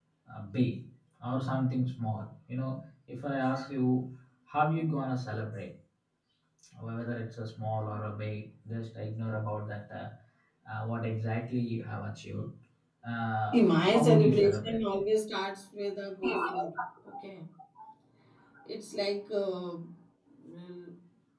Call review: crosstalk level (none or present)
present